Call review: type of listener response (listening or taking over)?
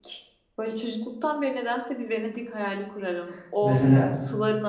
listening